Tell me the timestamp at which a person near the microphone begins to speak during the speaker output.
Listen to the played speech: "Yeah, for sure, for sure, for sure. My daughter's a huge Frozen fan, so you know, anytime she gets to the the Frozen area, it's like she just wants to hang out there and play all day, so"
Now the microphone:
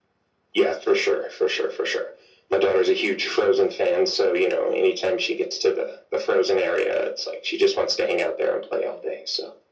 none

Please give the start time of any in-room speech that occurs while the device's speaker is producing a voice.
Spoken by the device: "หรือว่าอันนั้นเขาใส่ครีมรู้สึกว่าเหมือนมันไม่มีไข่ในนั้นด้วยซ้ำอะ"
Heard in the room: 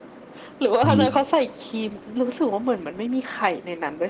0.8 s

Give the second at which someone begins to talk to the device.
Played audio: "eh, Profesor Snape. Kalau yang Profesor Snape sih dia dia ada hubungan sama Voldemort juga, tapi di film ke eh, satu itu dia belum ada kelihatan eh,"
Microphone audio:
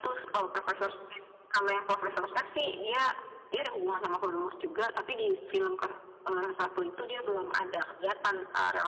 none

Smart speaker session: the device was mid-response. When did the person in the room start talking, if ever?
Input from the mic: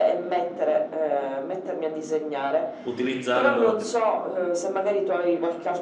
2.8 s

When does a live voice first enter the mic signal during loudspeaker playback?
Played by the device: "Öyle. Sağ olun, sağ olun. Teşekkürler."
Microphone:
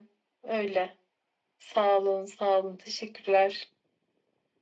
none

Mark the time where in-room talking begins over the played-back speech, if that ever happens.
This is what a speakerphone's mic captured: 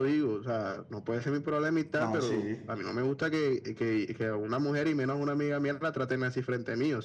2.0 s

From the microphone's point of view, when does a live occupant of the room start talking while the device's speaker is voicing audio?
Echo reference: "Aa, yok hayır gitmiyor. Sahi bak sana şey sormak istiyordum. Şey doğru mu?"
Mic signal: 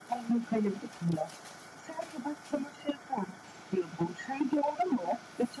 none

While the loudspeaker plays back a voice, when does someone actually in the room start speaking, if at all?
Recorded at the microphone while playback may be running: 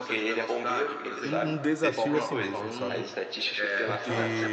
1.2 s

